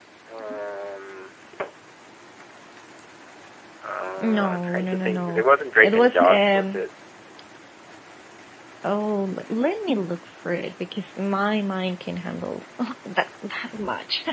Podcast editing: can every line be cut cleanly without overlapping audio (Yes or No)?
No